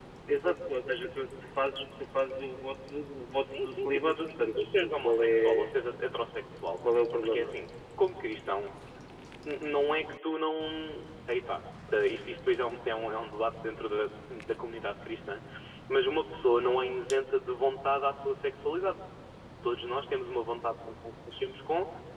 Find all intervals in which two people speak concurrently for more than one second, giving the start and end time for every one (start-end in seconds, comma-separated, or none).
3.4-5.7